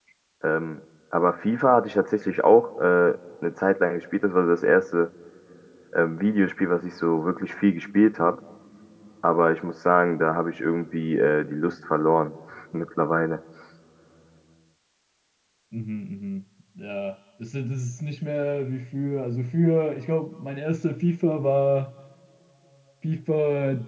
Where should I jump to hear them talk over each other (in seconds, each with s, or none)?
none